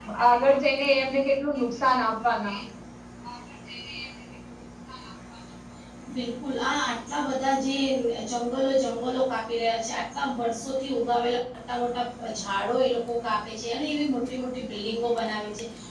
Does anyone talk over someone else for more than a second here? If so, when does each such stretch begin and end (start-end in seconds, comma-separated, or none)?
none